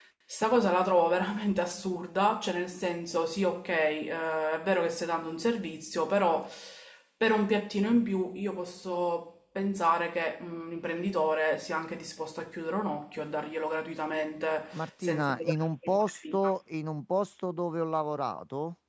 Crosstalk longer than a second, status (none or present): present